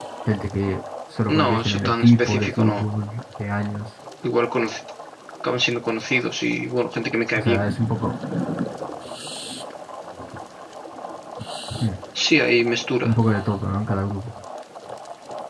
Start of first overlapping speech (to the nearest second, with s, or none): 1 s